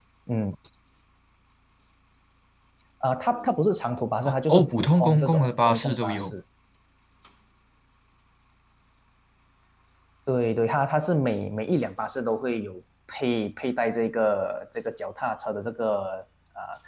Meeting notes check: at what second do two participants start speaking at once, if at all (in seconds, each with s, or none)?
4.2 s